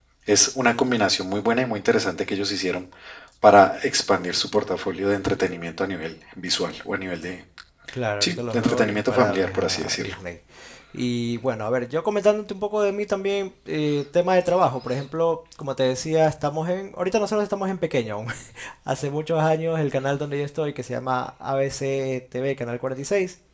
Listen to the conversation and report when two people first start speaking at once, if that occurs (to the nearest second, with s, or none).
8 s